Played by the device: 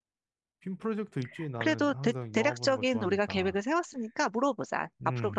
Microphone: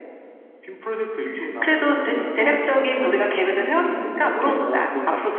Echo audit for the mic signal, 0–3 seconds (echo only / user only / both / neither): echo only